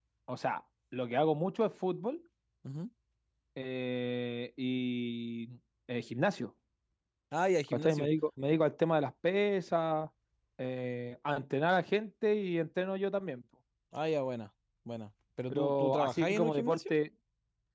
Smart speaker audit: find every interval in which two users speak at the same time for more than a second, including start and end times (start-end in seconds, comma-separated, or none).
15.5-16.9